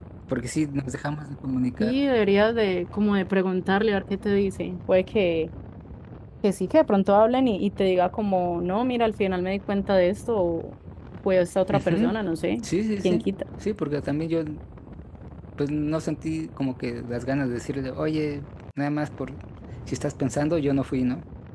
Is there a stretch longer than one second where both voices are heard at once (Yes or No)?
No